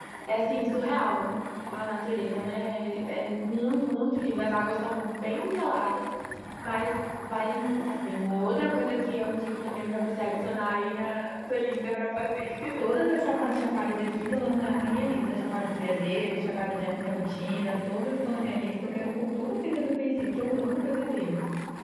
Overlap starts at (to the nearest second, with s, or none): none